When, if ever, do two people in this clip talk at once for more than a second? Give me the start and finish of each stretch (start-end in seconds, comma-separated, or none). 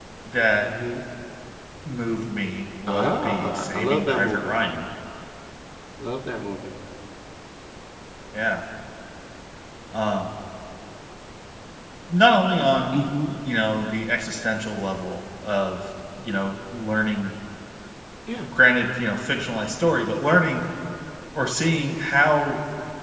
2.9-4.5